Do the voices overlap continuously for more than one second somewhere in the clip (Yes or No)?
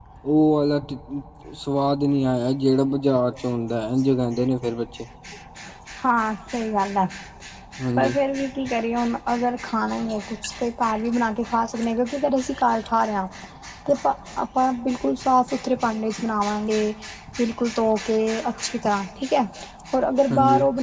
No